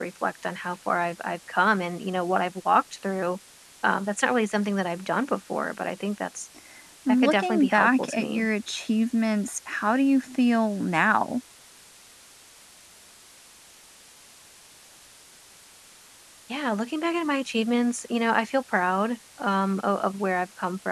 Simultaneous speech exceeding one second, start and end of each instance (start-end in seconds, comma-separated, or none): 7.1-8.4